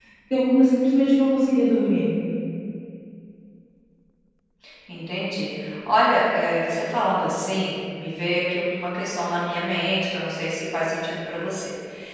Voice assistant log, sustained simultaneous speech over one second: none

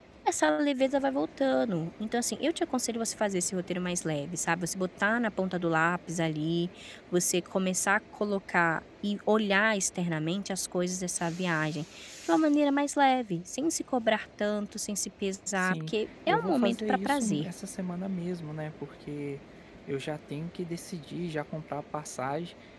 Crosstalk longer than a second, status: present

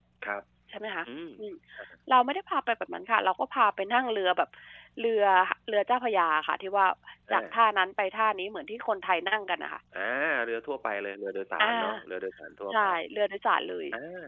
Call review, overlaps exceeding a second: none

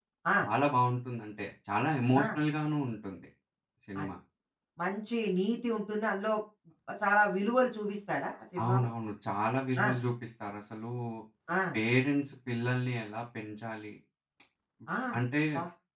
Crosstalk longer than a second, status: none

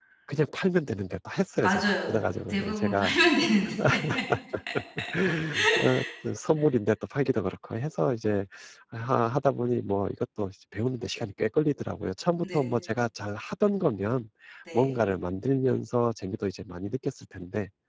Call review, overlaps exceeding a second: present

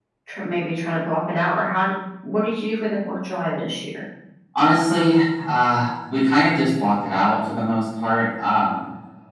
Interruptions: none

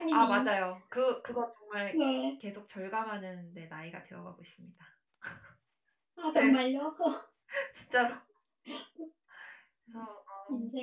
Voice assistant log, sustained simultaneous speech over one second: none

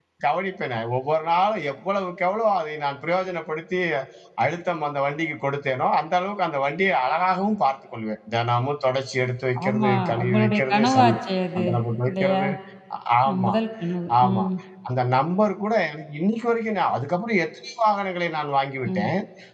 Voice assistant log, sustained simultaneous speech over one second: present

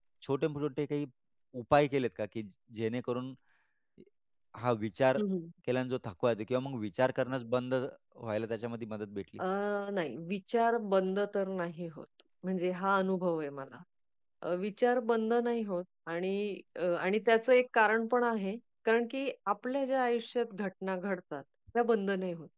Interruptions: none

